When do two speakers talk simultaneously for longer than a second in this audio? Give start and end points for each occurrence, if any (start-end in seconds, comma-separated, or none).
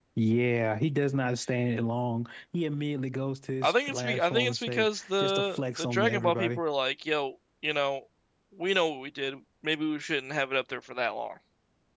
3.6-6.6